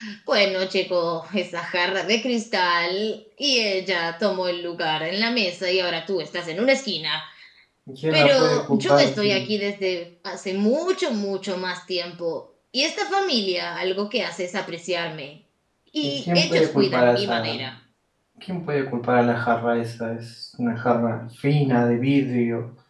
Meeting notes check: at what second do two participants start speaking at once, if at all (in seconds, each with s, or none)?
8.1 s